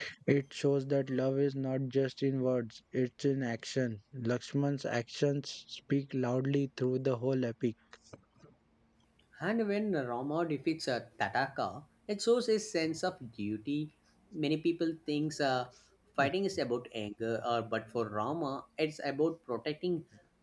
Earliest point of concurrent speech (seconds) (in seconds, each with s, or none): none